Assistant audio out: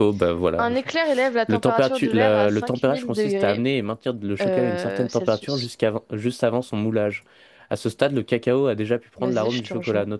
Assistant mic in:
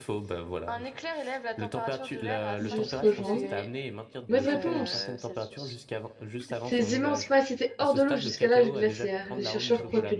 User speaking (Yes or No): Yes